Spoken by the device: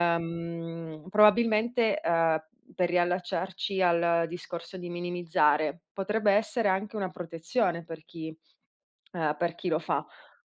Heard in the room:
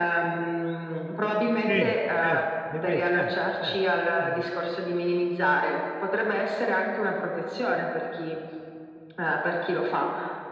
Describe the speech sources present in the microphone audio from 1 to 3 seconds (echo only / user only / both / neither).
both